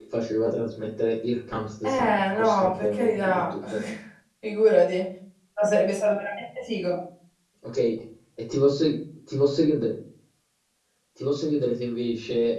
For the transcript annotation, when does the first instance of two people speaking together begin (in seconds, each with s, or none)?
1.8 s